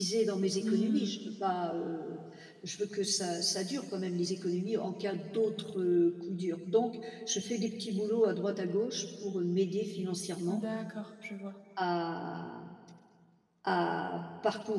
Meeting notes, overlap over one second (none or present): none